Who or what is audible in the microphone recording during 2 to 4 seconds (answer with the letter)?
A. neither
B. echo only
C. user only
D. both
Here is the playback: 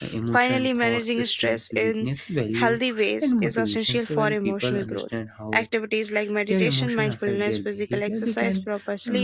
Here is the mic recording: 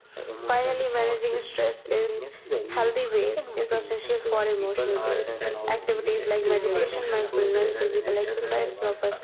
B